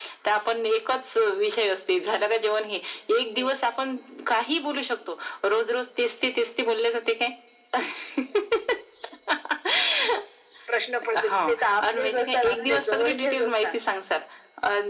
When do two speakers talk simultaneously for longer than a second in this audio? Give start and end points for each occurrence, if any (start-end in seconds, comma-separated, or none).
11.2-13.7